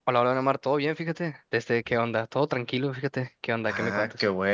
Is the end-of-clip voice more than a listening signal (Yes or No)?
Yes